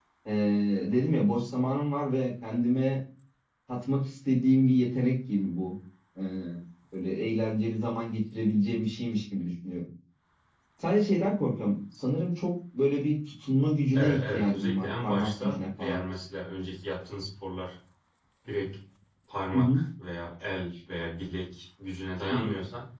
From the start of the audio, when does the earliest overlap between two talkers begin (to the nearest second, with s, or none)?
14 s